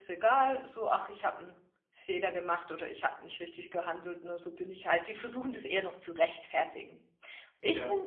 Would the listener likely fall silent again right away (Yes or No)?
Yes